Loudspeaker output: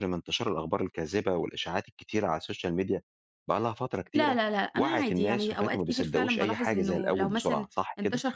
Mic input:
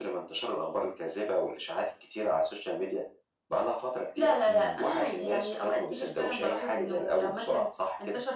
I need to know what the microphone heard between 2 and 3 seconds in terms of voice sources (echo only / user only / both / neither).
echo only